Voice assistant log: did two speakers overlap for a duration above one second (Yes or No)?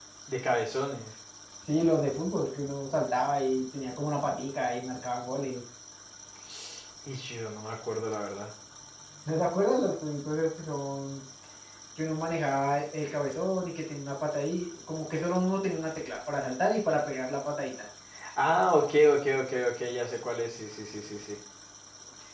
No